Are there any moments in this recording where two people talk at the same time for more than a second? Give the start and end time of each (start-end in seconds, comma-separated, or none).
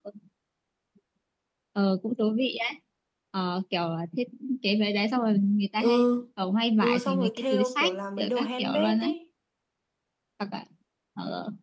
6.8-9.1